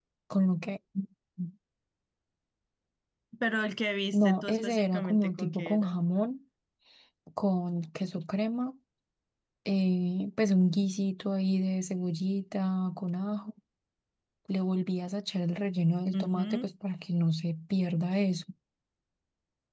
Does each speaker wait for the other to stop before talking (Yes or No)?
No